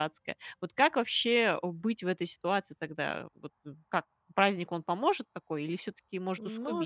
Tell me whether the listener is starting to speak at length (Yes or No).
Yes